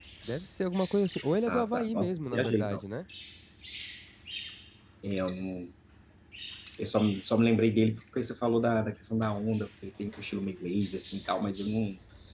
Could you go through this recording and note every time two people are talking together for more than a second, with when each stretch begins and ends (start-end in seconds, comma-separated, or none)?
1.5-2.8